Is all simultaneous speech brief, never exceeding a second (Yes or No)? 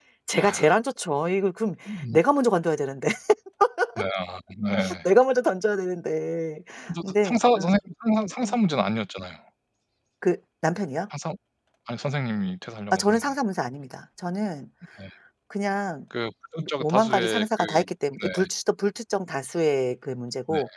No